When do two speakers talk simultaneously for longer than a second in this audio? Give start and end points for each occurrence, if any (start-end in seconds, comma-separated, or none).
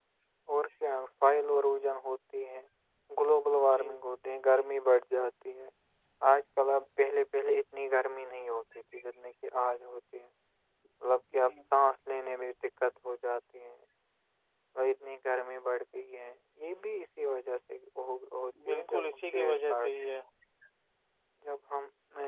18.7-19.9